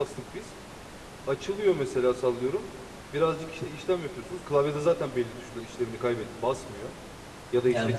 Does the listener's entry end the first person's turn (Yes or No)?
Yes